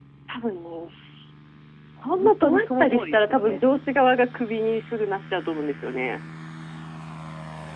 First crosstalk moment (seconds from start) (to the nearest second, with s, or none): 2 s